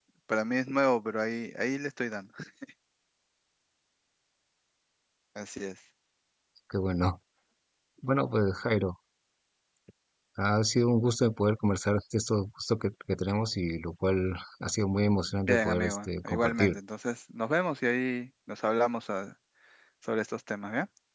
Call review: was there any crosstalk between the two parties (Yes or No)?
Yes